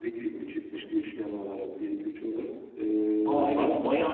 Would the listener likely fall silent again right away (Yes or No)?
No